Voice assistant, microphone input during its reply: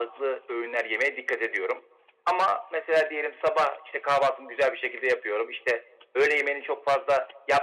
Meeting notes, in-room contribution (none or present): none